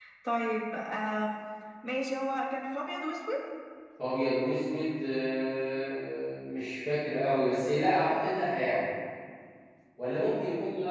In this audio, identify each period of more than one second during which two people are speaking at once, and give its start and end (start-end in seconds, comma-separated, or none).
none